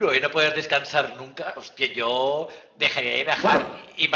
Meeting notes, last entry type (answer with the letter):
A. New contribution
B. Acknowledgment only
B